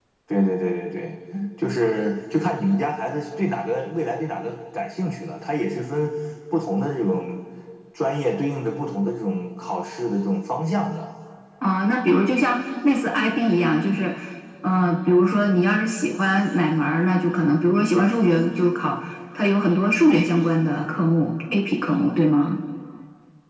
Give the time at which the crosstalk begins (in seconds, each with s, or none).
none